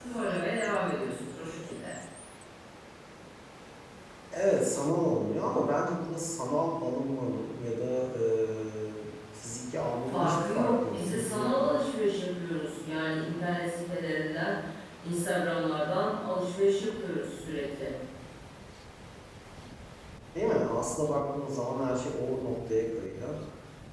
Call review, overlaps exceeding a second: present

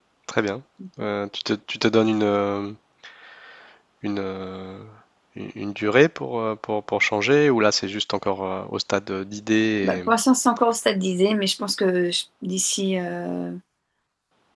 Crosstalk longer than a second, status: none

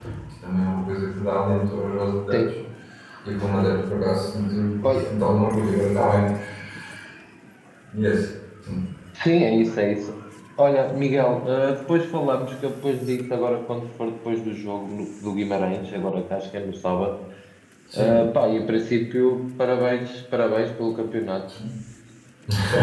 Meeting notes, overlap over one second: none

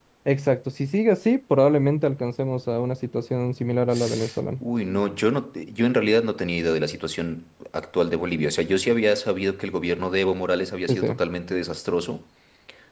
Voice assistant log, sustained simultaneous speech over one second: none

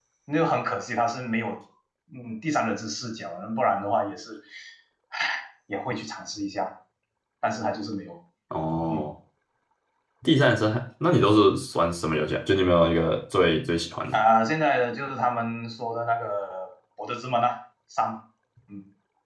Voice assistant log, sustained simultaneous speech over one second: none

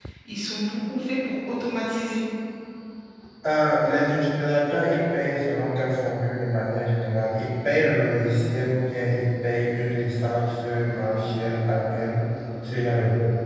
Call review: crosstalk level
none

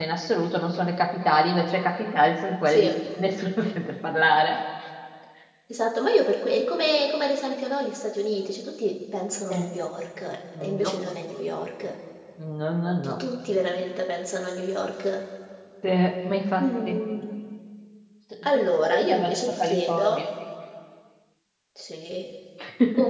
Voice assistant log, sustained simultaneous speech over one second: present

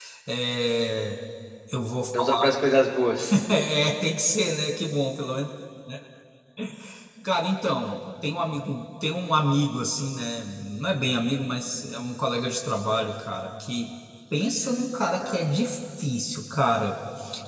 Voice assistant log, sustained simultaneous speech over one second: none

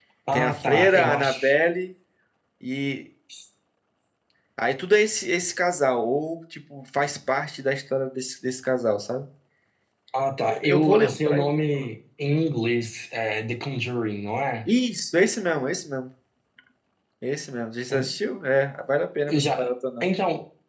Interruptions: present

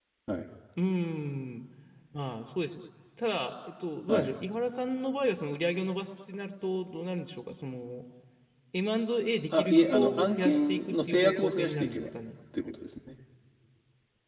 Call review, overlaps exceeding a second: present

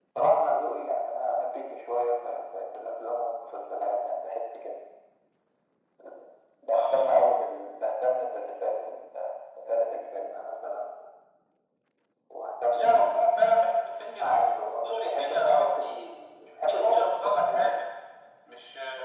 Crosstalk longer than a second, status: present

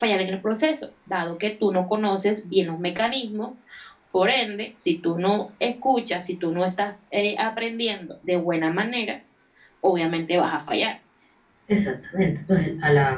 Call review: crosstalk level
none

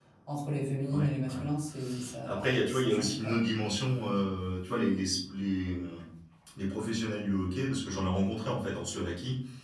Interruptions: present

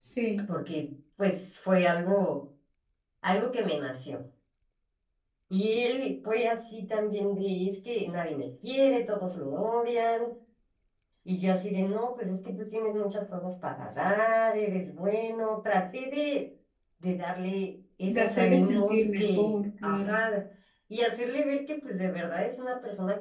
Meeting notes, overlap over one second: present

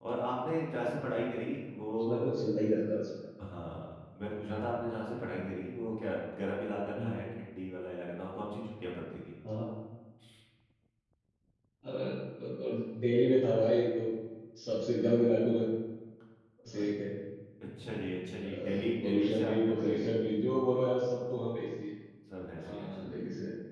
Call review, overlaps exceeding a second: present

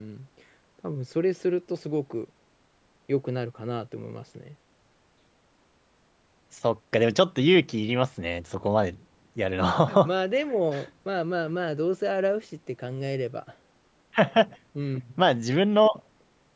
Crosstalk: none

